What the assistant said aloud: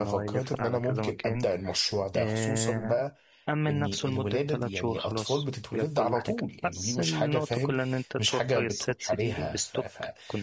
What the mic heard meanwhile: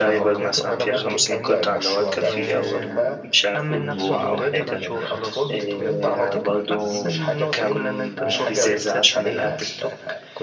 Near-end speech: present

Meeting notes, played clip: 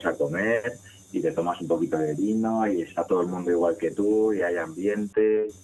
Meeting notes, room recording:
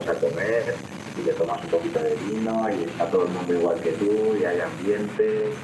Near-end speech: none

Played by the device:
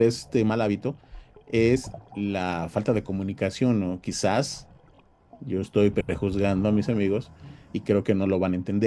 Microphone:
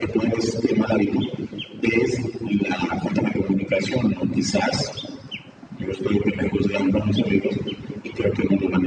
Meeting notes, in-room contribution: none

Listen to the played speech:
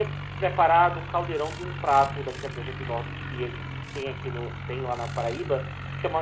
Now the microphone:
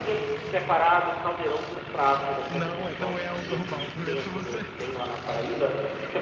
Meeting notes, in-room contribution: present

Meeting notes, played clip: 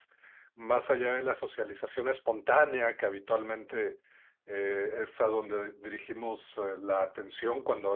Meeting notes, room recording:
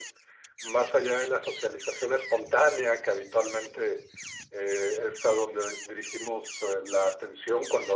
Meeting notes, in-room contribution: none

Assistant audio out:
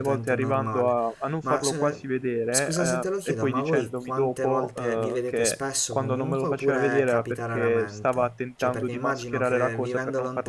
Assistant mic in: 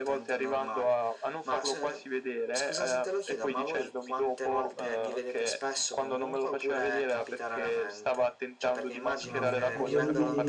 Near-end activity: present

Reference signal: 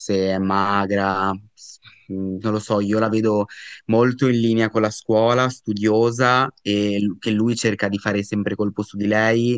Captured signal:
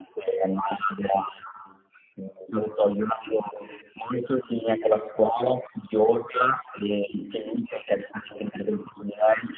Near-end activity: none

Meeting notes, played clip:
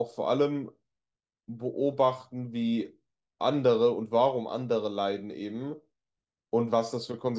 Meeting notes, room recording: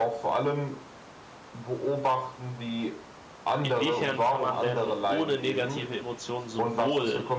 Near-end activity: present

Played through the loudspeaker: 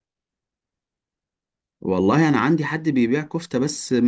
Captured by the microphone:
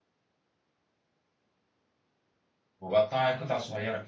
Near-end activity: present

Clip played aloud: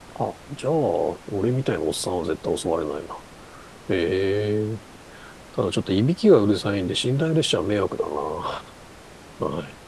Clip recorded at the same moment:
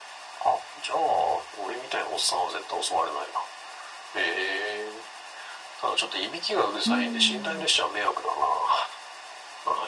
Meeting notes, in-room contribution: present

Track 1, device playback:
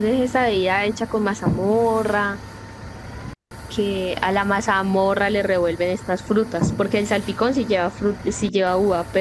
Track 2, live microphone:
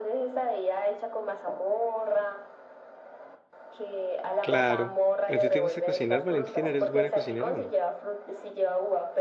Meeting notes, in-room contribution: present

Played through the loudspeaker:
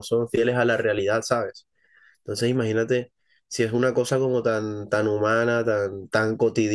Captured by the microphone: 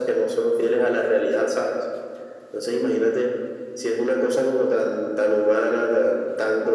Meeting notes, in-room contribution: none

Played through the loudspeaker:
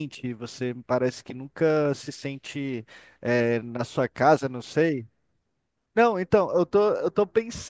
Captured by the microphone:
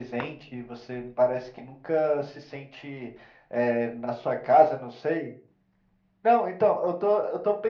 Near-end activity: none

